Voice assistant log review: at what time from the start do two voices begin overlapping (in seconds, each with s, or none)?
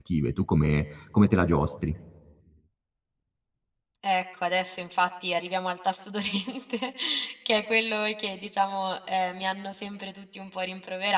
none